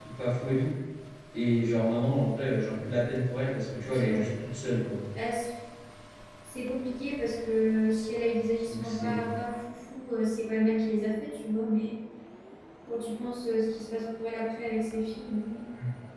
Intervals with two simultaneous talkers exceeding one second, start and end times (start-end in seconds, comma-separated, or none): none